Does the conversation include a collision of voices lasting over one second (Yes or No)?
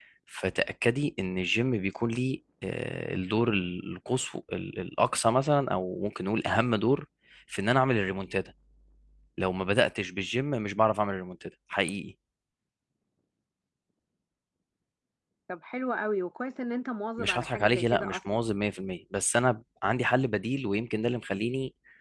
Yes